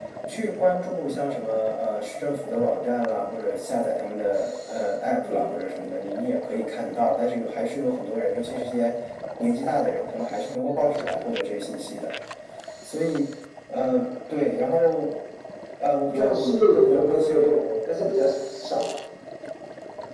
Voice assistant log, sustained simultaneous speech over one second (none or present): present